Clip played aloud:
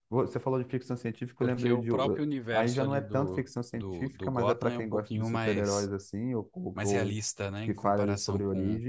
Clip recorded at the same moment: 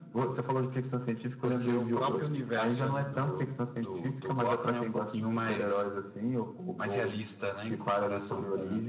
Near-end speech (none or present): none